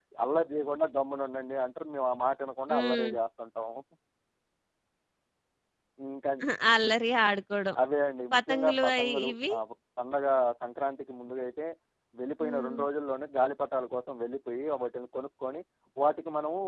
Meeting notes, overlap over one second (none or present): present